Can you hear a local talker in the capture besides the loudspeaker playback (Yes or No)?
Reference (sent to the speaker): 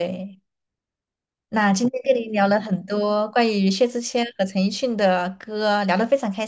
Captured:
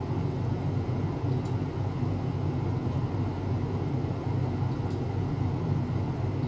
No